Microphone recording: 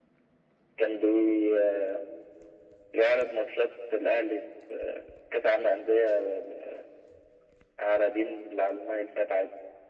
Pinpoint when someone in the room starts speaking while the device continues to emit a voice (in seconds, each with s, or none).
none